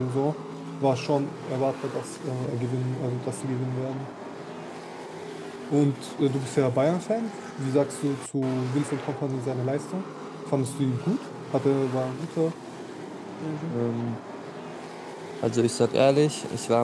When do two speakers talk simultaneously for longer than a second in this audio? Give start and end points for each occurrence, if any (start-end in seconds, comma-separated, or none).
none